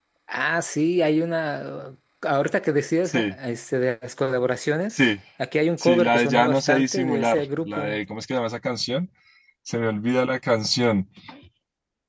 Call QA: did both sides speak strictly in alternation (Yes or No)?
No